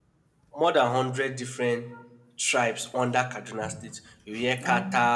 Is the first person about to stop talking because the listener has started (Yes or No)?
No